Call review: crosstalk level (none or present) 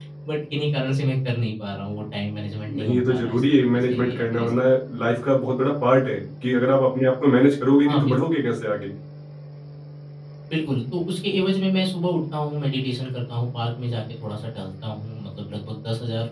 present